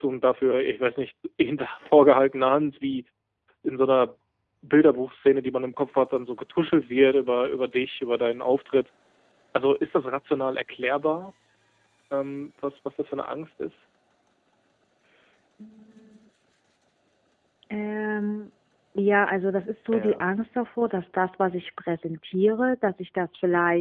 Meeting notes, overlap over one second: none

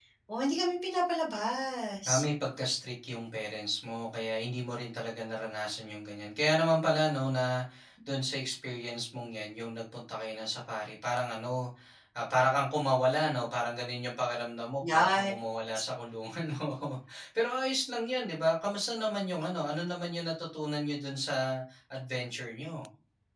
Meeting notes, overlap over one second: none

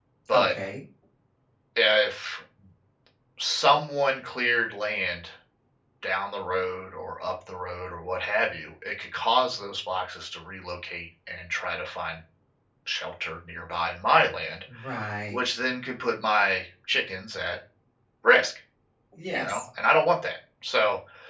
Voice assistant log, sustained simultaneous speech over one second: none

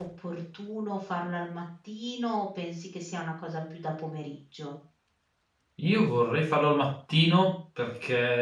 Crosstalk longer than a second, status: none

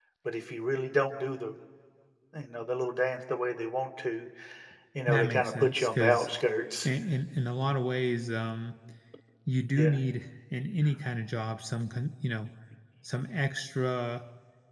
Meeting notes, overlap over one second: present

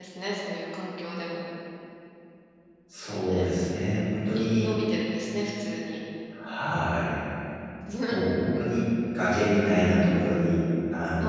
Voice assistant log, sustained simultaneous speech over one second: none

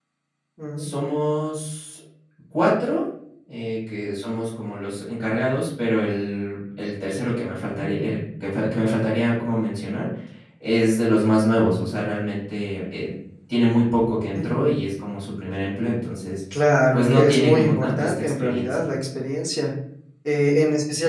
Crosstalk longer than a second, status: present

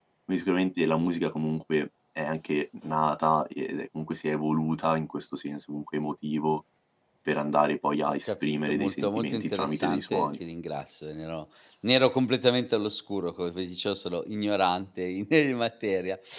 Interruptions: present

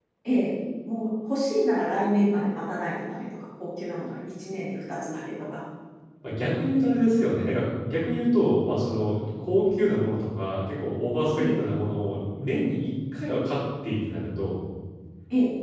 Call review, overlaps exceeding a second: none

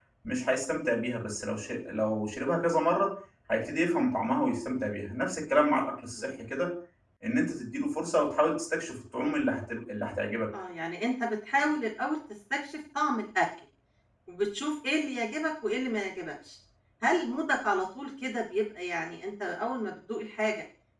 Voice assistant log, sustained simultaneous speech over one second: none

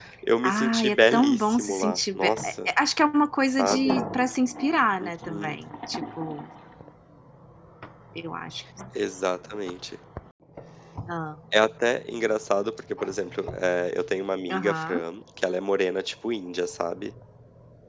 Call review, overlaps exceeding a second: present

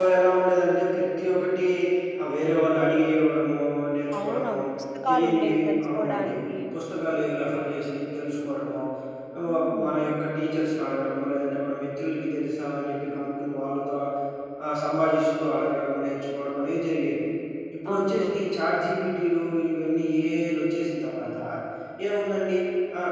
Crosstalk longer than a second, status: present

